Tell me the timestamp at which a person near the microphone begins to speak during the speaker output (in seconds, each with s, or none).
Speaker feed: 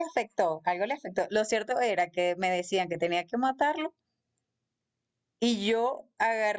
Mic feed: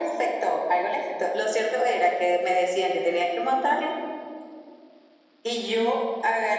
none